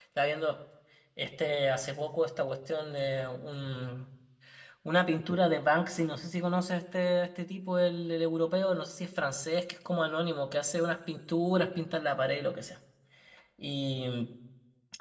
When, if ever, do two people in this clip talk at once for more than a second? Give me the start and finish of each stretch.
none

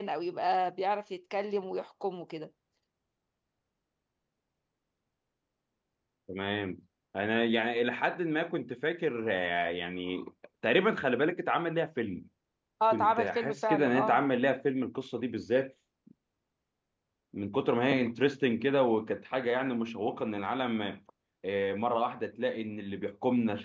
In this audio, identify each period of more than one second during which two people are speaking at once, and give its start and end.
12.9-14.2

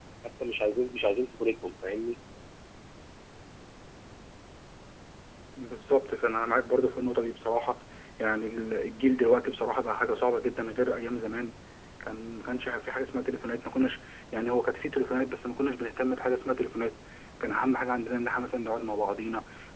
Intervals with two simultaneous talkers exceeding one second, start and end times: none

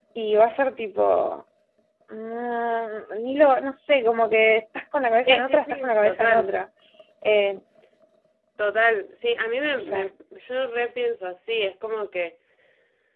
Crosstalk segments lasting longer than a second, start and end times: 5.2-6.5

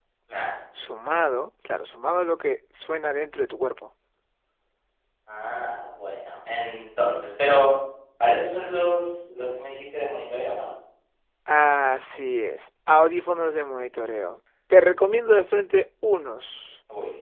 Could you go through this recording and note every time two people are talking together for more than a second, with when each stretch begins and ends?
none

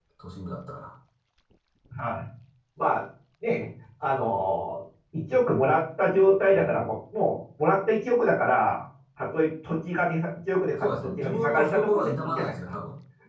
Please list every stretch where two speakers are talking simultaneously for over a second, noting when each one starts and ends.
10.8-12.7

